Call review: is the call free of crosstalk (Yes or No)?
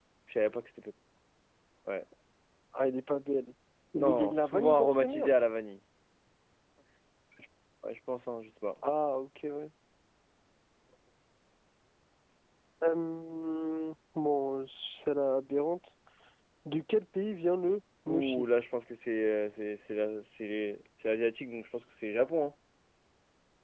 No